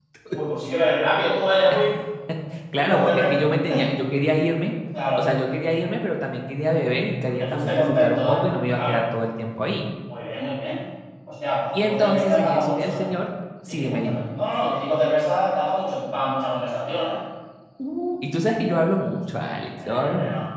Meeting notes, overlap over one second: present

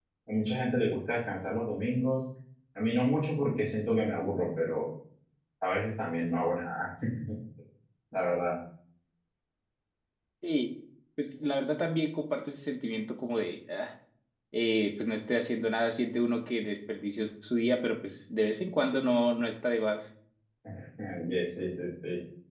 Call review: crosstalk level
none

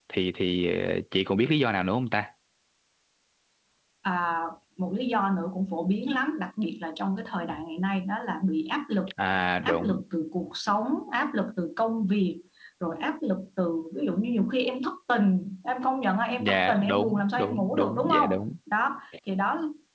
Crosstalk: present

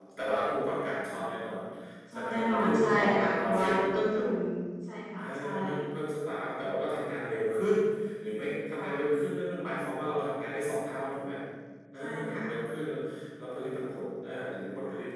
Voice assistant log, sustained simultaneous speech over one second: present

